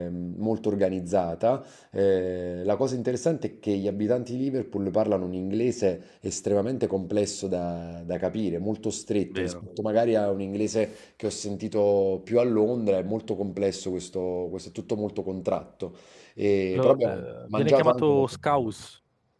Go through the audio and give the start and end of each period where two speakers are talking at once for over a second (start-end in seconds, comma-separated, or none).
16.7-18.7